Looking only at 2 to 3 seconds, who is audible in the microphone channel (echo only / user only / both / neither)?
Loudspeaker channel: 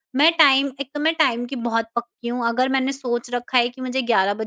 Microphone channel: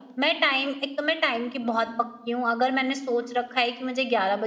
echo only